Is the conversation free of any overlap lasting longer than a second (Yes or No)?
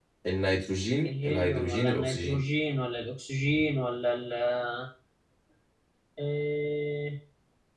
No